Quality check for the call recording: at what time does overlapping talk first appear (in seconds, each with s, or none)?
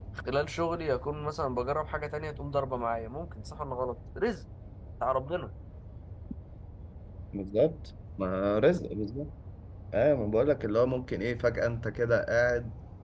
none